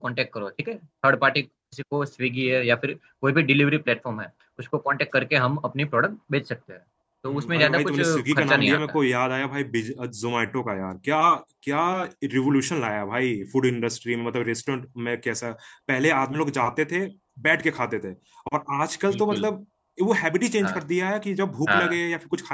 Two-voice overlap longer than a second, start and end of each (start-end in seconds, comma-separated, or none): 7.3-8.8